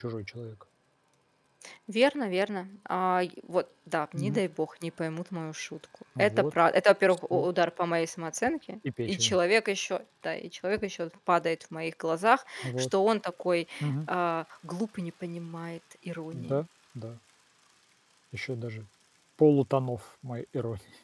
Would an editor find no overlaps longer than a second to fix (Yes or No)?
Yes